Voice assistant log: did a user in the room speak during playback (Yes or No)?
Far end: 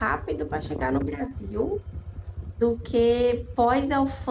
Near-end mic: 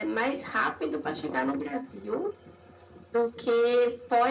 No